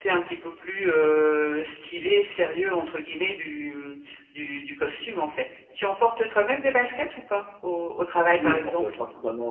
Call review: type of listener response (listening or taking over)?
taking over